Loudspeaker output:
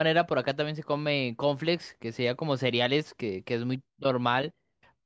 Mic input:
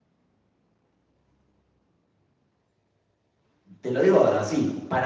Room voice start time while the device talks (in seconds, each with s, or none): 3.8 s